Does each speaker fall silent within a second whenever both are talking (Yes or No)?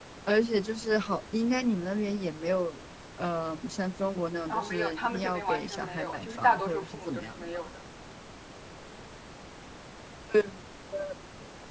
No